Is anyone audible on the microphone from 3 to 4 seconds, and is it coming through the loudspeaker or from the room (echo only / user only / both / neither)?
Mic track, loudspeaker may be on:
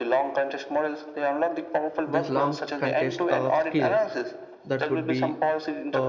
both